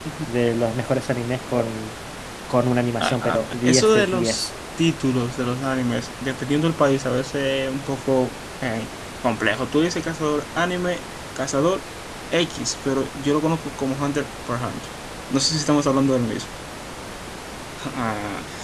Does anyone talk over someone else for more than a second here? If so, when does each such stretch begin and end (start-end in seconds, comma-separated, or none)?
3.0-4.5